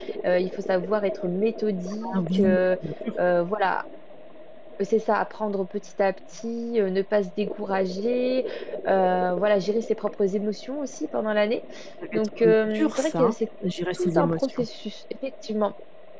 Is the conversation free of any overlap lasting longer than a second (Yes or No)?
No